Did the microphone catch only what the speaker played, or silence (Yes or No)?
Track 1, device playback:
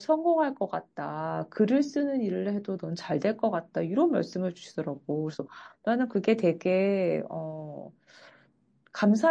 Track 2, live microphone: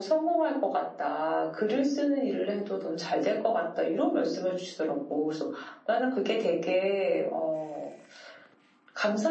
Yes